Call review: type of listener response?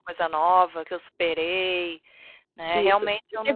taking over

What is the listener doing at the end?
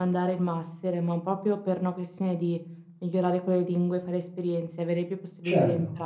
taking over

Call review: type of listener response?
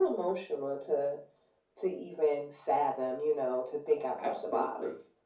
taking over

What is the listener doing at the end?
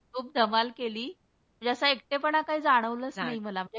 listening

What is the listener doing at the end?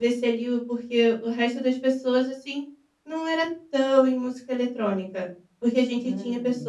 listening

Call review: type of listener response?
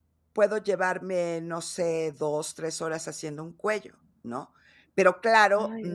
listening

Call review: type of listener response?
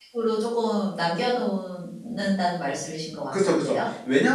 taking over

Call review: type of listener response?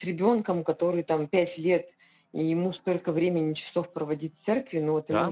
taking over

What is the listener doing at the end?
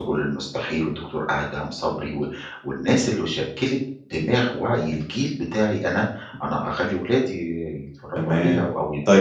taking over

